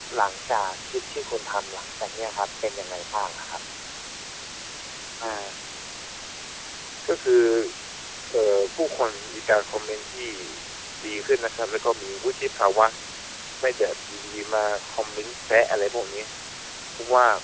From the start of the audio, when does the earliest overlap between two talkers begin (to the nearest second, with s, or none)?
none